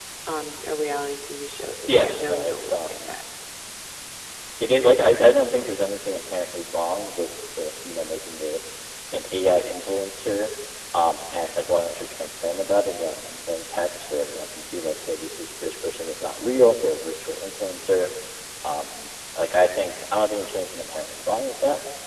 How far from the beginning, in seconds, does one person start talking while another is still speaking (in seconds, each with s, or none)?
1.9 s